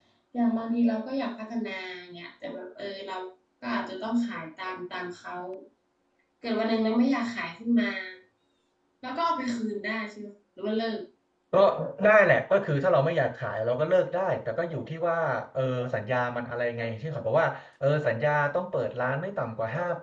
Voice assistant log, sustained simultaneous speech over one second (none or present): none